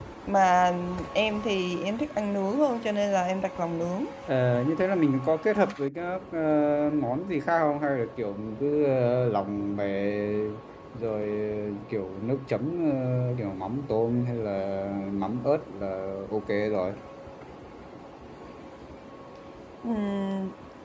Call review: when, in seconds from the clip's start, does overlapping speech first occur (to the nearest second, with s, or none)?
none